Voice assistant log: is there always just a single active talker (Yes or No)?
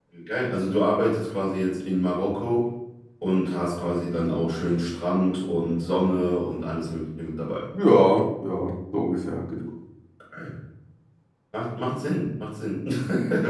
Yes